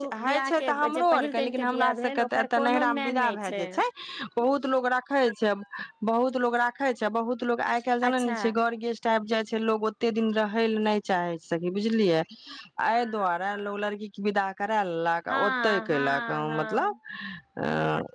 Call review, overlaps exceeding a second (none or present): present